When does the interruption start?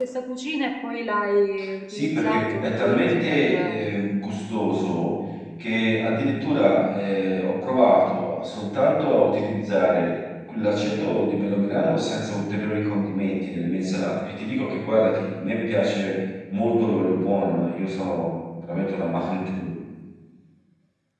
2 s

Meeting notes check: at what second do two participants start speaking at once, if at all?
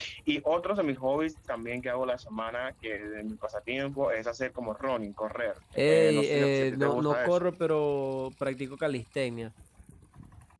6 s

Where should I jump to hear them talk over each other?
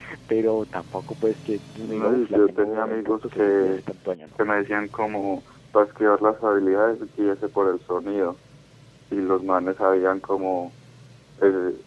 2 s

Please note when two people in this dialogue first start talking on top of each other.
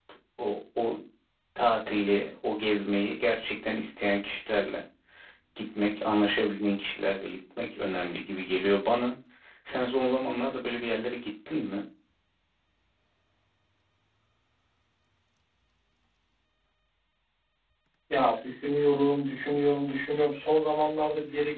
none

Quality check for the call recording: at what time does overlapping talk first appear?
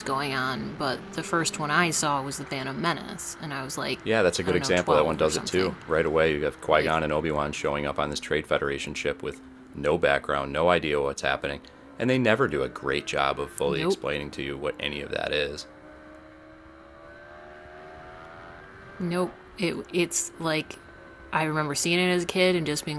4 s

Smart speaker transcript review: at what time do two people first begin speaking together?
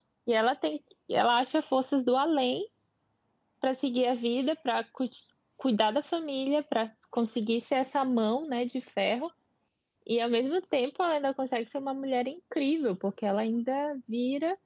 none

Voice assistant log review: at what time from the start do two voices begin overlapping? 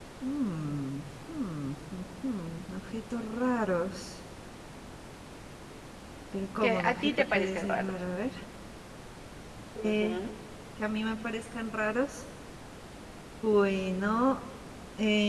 7 s

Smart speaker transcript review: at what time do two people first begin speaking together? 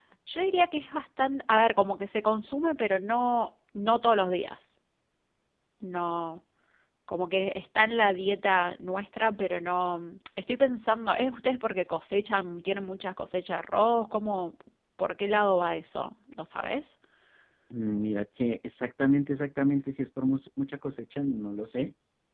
none

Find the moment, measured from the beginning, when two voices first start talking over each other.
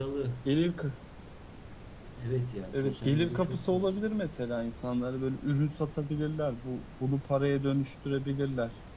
3 s

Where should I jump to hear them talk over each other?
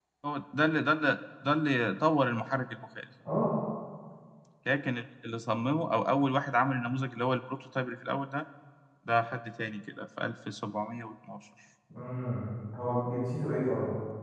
none

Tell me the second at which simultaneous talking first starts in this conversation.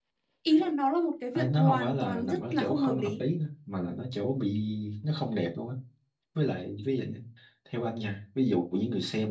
1 s

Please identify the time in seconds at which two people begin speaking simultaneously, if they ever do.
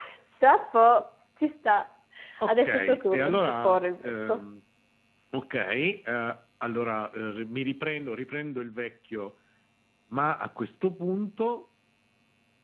2 s

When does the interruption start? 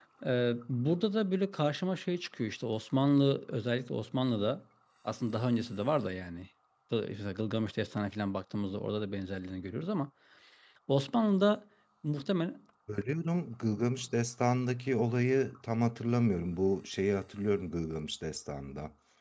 none

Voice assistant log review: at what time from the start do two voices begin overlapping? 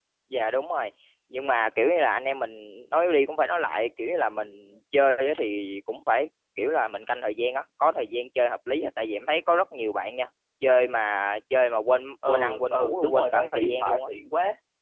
12 s

